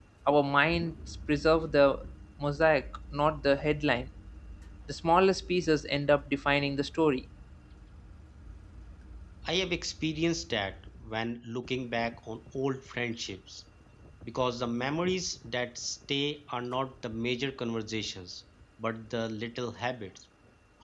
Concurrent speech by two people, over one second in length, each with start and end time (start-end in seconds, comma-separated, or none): none